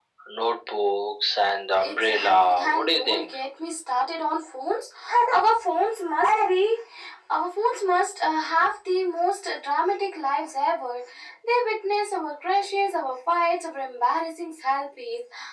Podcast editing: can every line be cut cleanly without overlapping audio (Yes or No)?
No